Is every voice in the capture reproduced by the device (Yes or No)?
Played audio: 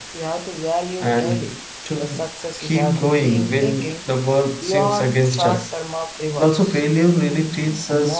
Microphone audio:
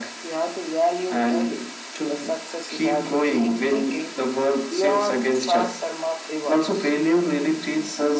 Yes